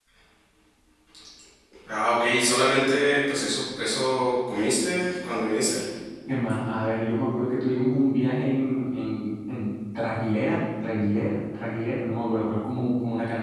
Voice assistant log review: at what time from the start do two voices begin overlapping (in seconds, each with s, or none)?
none